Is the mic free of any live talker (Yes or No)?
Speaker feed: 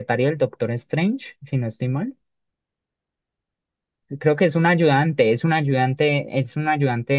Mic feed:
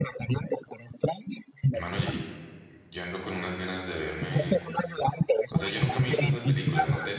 No